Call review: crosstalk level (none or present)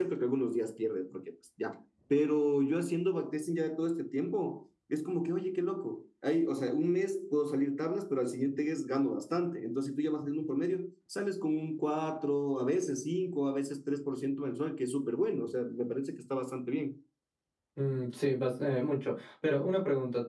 none